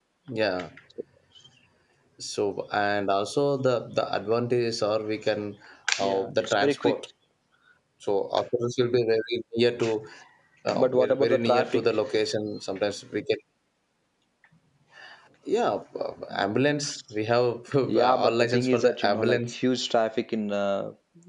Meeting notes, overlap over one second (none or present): present